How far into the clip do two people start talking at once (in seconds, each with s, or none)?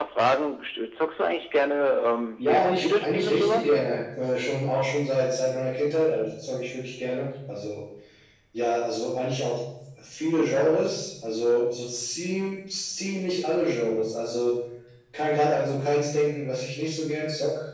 2.4 s